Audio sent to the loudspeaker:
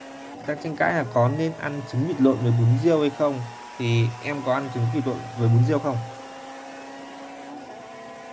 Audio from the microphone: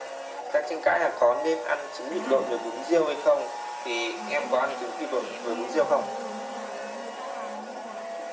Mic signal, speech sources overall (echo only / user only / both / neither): both